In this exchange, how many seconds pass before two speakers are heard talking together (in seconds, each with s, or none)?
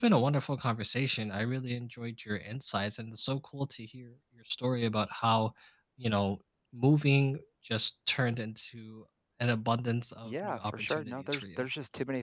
10.2 s